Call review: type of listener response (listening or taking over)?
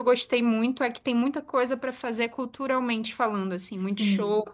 taking over